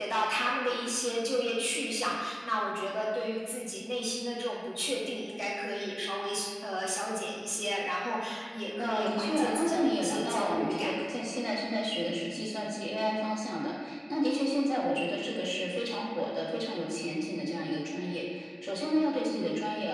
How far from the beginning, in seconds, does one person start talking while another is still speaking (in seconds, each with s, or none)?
8.8 s